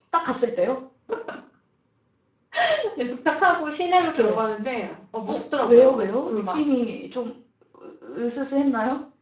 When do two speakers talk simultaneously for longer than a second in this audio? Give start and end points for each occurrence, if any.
5.3-6.6

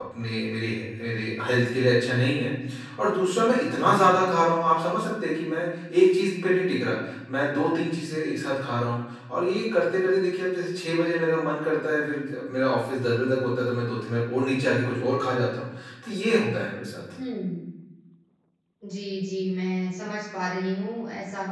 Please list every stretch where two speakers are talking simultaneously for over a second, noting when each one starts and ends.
none

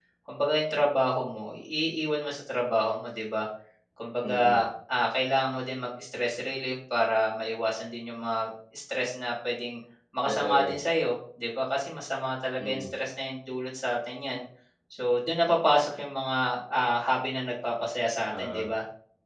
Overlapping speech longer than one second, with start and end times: none

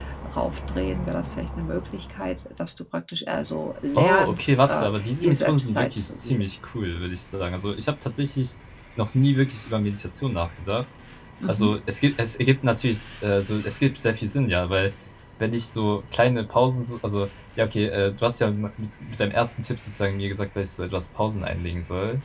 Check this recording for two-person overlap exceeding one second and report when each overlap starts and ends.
4.0-6.4

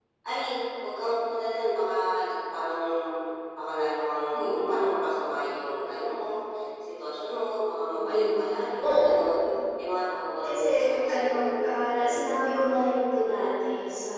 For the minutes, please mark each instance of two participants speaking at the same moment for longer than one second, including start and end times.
none

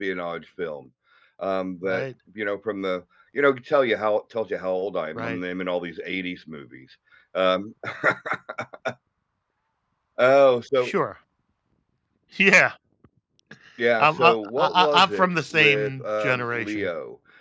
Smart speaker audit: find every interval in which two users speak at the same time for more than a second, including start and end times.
14.0-16.9

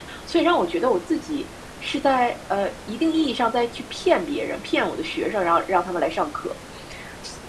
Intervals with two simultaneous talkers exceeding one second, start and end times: none

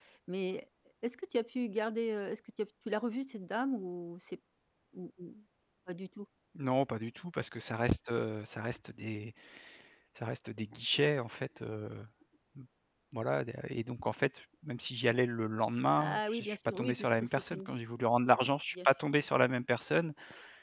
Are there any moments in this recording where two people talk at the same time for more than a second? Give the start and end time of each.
16.0-17.7

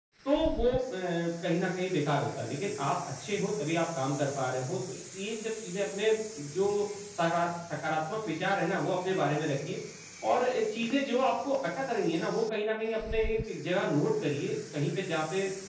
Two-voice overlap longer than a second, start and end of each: none

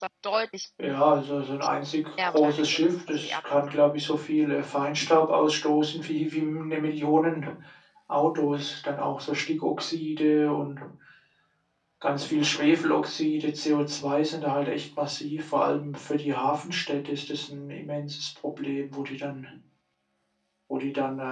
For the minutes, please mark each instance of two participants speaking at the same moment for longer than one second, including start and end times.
2.2-3.7

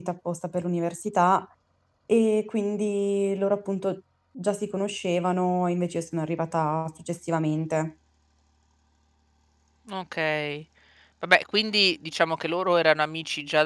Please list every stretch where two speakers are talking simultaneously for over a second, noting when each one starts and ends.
none

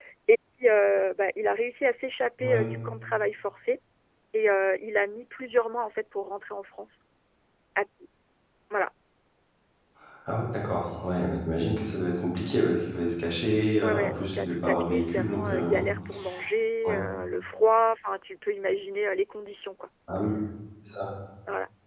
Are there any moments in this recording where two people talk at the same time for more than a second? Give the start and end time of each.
13.8-15.8

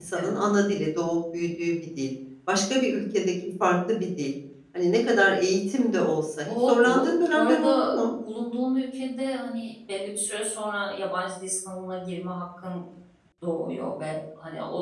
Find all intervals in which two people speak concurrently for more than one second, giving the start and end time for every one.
6.5-8.1

